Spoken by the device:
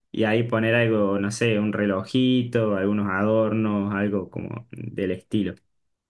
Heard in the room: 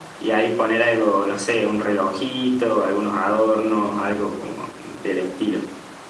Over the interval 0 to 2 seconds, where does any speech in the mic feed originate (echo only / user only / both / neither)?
echo only